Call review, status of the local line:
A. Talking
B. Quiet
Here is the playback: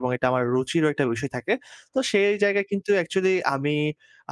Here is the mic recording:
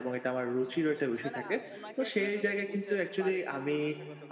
A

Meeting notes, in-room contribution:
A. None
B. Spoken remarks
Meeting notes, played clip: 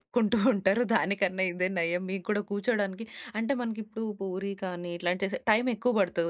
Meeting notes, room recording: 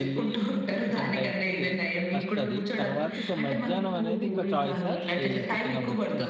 B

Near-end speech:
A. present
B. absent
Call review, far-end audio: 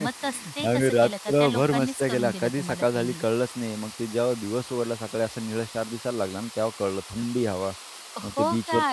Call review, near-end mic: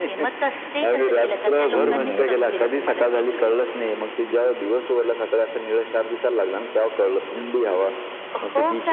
A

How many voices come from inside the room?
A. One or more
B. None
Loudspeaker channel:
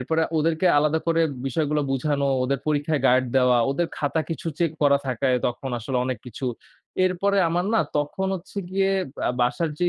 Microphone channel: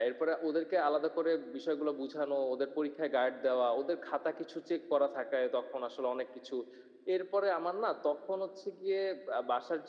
B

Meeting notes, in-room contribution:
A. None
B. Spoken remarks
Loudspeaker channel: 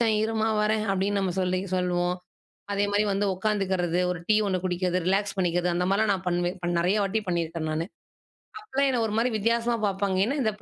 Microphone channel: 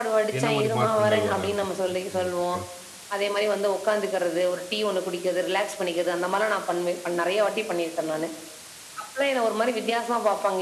B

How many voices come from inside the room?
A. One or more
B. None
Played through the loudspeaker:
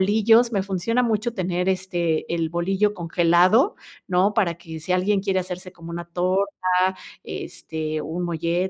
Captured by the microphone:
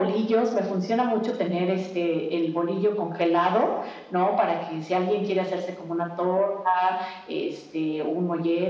B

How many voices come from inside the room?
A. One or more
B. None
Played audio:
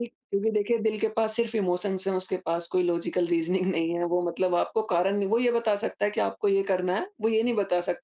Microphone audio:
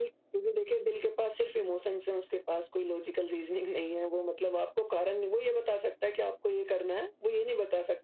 B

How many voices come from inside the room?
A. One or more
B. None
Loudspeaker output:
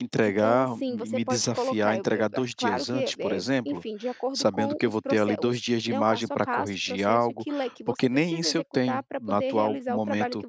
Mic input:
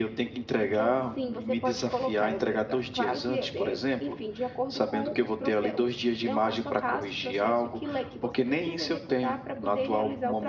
B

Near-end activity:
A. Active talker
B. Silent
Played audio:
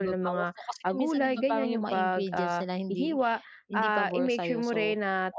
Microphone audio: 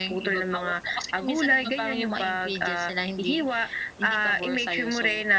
B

